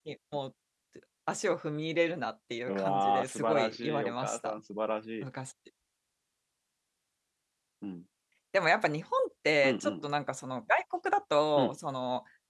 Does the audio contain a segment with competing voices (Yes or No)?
Yes